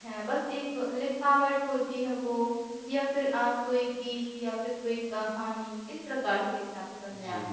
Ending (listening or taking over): taking over